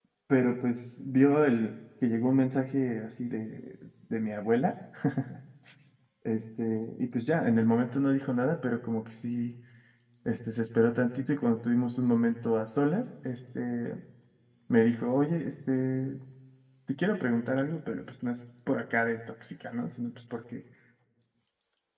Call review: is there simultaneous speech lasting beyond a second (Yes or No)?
No